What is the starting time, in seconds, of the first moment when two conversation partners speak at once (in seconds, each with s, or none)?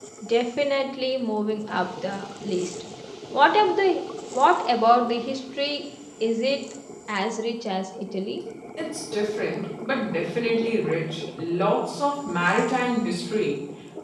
none